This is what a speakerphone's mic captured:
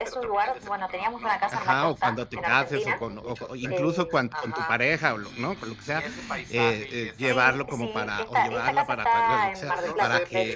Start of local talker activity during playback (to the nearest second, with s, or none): 2 s